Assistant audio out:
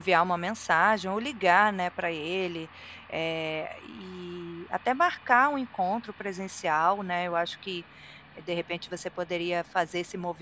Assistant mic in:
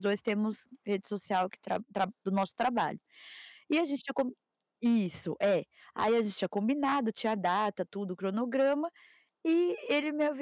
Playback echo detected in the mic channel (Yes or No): No